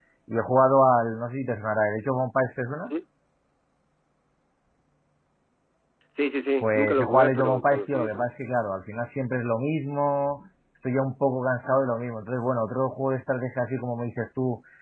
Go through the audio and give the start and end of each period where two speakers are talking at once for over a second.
6.6-8.3

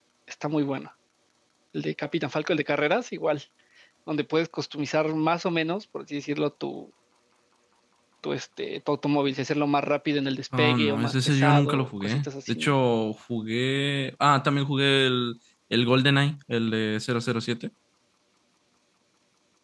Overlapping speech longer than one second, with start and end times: 10.6-12.7

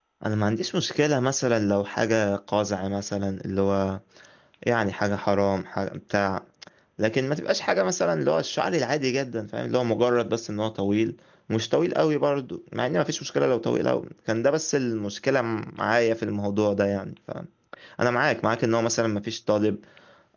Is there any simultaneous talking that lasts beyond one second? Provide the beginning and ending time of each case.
none

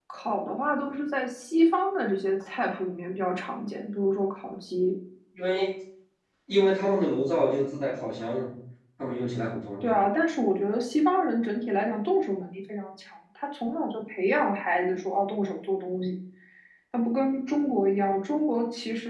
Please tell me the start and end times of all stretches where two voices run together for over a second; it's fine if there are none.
none

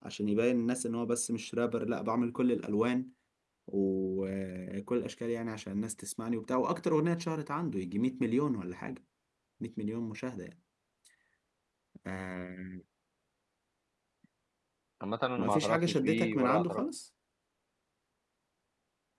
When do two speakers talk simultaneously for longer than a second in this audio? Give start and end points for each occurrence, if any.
15.4-16.8

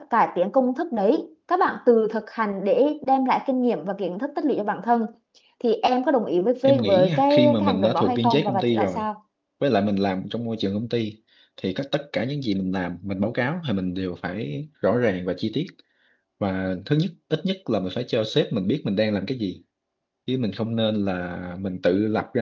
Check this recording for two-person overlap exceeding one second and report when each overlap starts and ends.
6.6-9.1

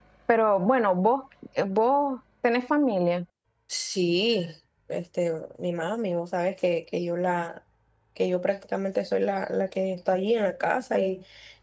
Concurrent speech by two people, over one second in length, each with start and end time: none

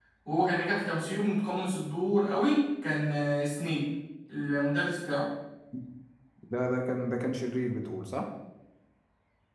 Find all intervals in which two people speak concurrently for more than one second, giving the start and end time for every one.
none

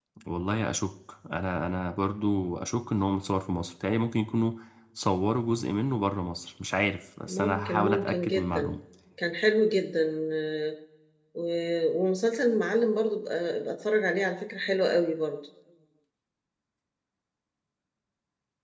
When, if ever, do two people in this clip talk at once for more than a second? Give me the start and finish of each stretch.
7.3-8.7

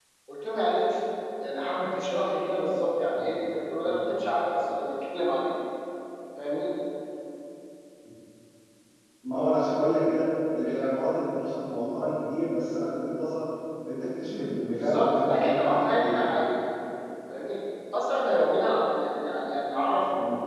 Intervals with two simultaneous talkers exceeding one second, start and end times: 14.7-16.2

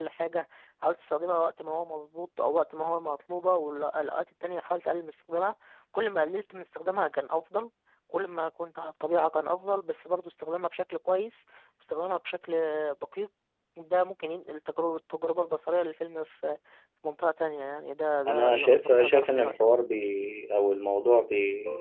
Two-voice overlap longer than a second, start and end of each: 18.3-19.6

